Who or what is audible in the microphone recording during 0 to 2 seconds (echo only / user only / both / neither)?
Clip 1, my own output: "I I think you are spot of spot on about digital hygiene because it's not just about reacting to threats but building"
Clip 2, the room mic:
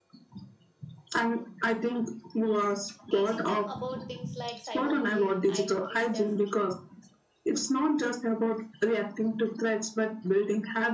echo only